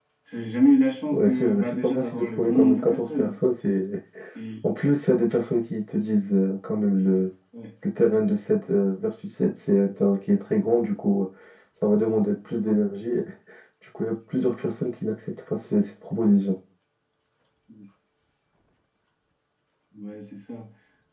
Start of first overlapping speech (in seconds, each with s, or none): 1.1 s